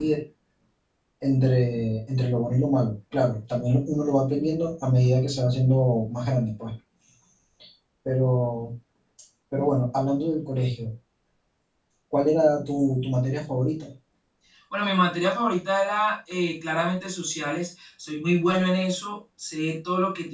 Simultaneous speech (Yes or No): No